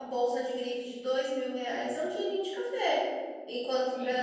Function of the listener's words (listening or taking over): listening